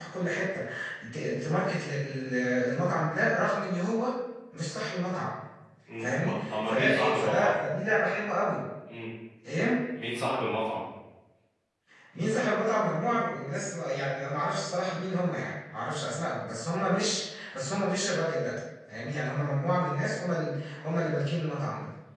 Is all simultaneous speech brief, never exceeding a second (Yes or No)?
No